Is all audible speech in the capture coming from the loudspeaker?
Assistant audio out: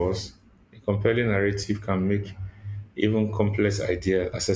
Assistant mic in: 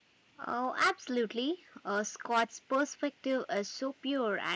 No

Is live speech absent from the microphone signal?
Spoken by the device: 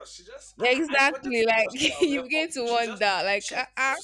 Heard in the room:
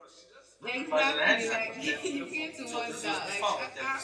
No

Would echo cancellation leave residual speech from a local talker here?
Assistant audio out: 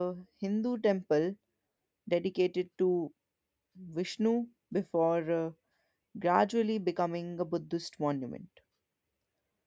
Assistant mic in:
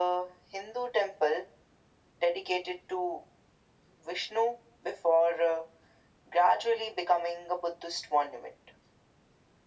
No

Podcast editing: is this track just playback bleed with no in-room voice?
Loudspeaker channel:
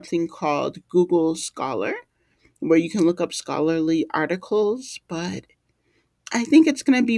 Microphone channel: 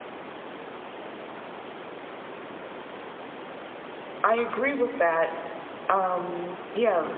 No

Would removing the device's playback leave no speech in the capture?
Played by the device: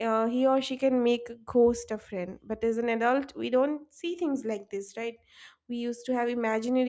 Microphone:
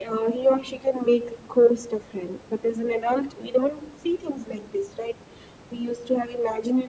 Yes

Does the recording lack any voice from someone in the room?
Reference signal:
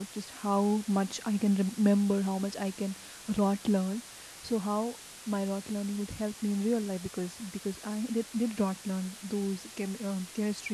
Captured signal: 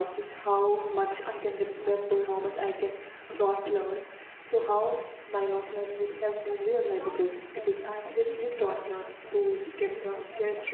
No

